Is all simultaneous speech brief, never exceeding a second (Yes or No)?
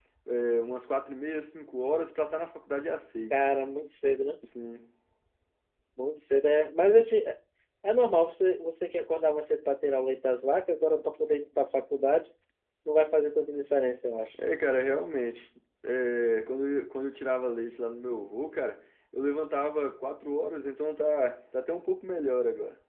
Yes